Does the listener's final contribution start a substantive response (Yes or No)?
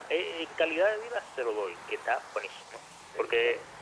No